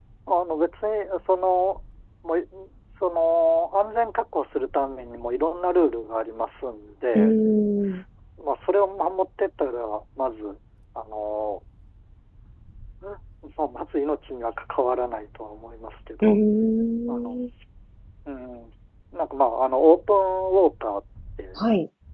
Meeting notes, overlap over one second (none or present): none